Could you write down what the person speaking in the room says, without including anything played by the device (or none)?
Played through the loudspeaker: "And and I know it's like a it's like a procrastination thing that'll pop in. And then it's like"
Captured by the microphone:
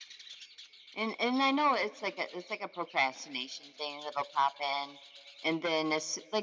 none